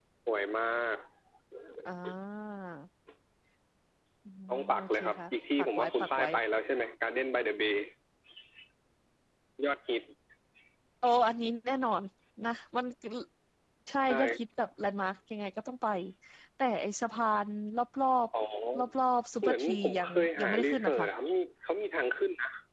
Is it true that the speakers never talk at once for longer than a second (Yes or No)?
No